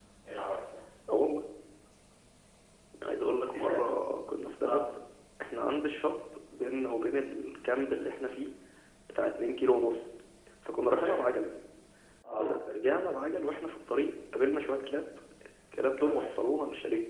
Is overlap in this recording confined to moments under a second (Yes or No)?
Yes